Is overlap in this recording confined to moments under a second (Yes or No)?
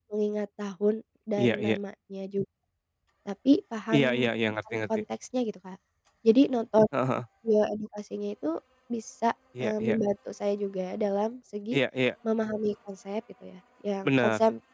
Yes